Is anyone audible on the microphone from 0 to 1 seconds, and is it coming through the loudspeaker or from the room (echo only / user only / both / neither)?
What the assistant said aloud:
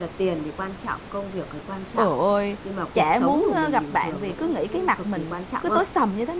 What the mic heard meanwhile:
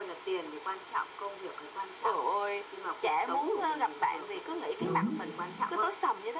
echo only